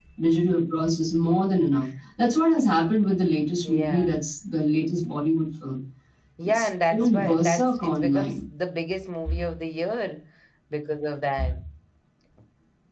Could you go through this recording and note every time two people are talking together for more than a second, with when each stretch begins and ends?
6.5-8.3

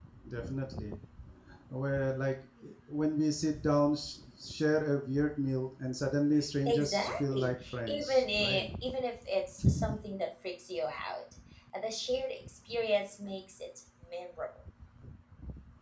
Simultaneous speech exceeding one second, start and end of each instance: 6.7-8.7

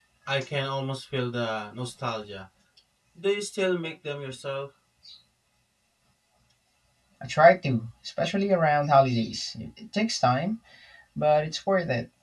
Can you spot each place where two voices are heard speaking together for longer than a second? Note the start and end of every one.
none

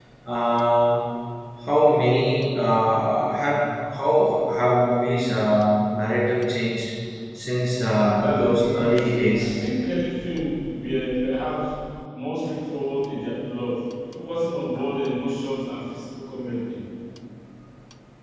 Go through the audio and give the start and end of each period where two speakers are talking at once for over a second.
8.2-9.6

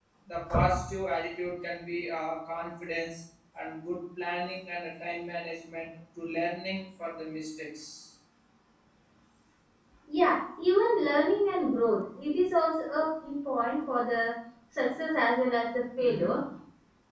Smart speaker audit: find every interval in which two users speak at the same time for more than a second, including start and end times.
none

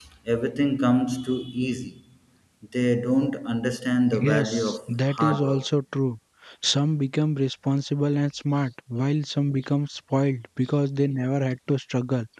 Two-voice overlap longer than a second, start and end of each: 4.2-5.7

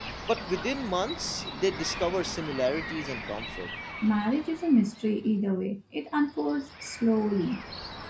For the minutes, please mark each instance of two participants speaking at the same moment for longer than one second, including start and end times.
none

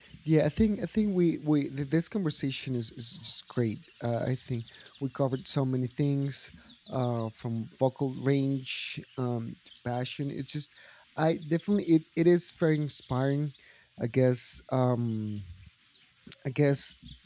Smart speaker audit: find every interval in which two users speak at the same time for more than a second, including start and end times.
none

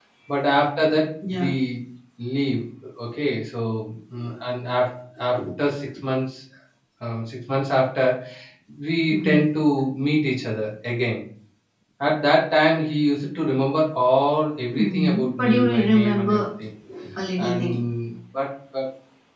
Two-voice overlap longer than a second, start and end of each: 14.7-16.5

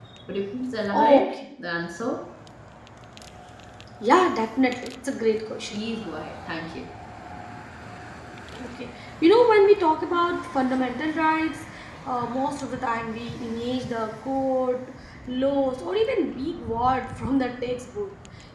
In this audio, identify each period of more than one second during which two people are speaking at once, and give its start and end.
none

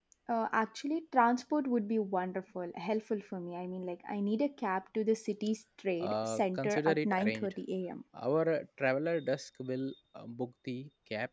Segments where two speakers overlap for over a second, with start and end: 6.0-7.5

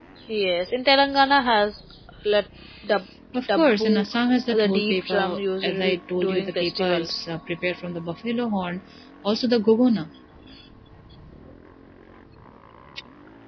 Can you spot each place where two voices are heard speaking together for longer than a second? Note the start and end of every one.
4.5-7.2

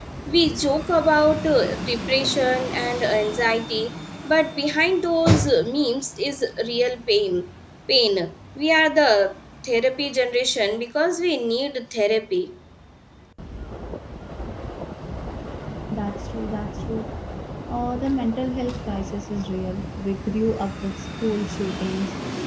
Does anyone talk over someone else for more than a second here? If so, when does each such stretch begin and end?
none

